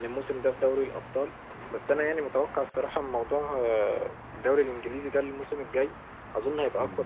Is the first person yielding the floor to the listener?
No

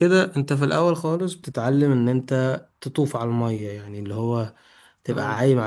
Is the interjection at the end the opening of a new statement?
No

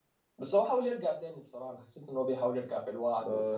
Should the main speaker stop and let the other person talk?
Yes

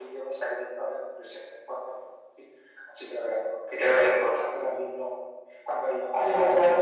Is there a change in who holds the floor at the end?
No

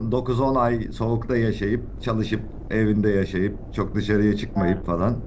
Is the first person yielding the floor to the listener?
No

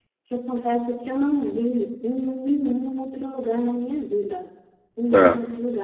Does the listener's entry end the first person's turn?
No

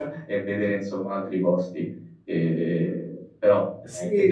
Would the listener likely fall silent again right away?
No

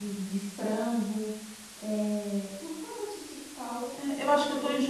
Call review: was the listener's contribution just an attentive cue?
No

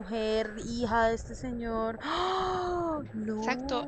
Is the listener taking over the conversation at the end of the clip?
Yes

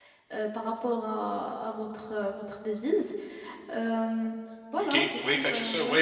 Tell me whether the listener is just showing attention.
No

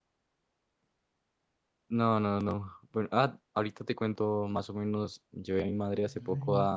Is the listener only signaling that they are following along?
Yes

